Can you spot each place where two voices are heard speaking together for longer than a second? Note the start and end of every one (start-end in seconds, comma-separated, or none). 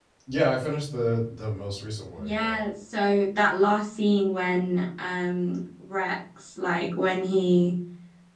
none